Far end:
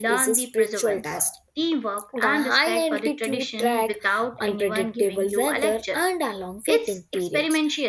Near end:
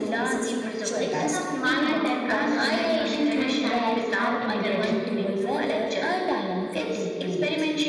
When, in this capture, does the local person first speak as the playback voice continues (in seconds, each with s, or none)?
1.0 s